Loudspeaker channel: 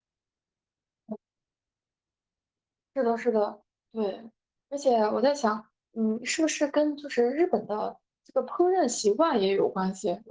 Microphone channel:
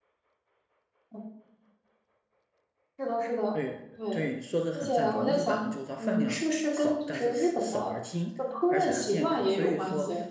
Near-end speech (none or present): present